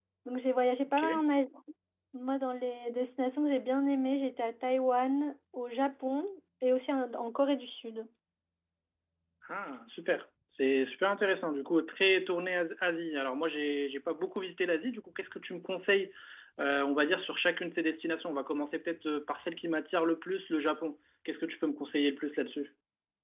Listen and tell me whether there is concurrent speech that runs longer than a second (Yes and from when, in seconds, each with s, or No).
No